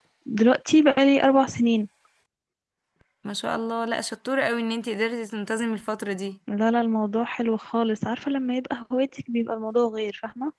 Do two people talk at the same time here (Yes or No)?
No